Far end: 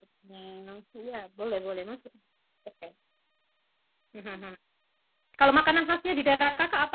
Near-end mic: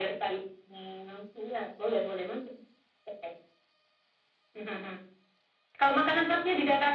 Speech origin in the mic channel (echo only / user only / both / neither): echo only